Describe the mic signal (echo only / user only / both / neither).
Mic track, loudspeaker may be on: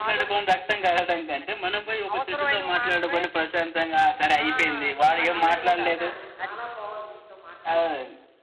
both